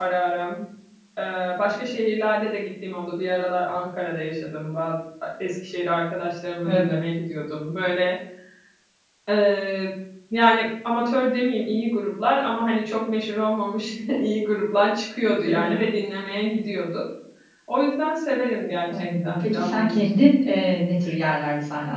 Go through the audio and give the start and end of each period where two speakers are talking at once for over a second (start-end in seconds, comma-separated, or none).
19.0-20.2